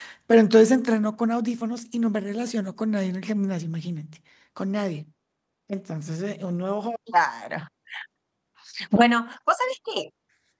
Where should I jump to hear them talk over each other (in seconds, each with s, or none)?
none